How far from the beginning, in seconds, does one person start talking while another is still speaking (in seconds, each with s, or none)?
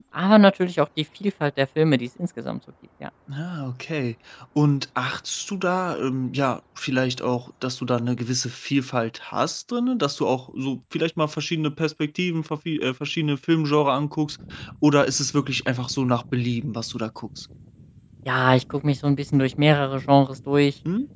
none